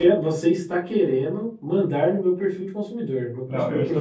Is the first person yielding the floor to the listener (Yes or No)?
Yes